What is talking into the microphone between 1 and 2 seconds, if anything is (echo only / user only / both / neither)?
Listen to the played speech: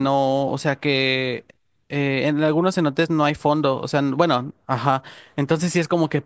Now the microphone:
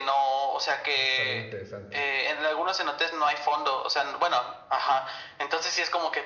both